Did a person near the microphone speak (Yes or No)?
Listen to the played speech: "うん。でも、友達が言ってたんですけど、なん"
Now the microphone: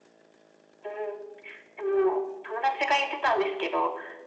No